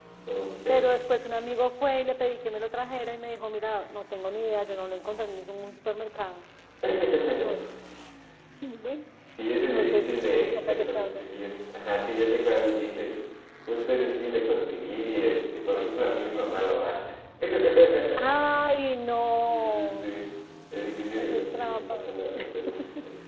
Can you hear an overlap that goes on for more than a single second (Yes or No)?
Yes